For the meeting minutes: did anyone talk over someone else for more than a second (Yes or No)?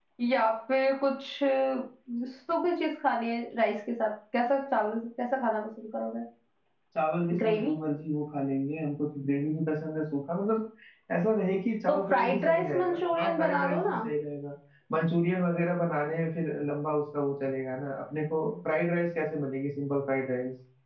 Yes